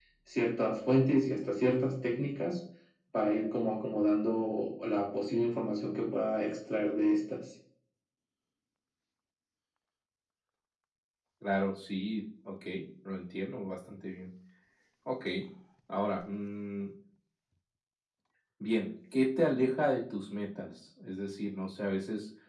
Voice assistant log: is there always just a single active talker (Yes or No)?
Yes